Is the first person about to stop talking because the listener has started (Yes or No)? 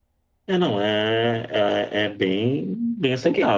Yes